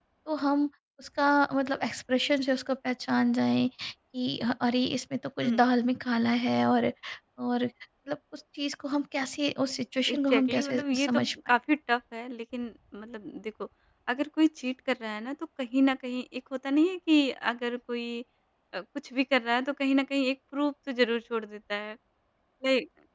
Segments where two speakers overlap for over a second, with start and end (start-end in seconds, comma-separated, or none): 10.1-11.6